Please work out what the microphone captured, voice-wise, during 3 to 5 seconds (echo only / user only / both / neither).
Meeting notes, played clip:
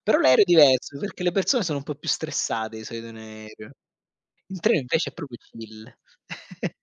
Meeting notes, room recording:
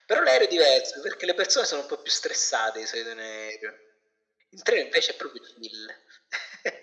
echo only